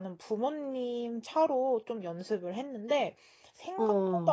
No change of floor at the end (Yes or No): Yes